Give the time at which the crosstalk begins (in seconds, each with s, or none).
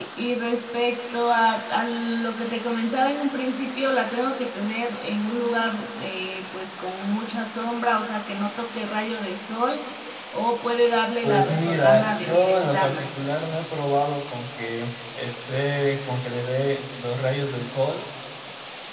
11.2 s